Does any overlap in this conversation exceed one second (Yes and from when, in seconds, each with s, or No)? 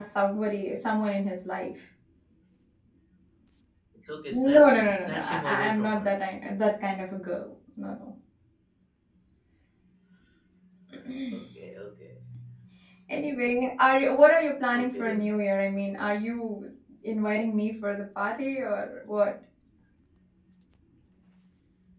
Yes, from 4.3 s